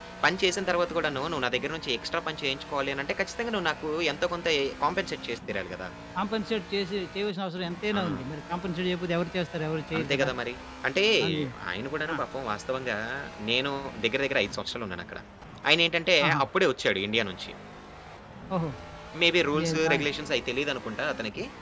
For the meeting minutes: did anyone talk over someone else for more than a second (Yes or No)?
No